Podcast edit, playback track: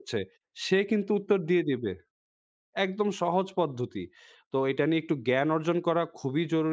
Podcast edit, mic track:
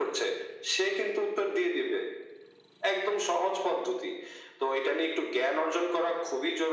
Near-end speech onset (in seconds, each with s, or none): none